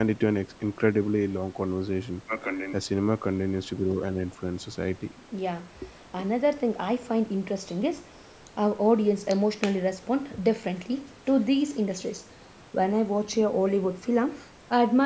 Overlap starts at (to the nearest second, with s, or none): none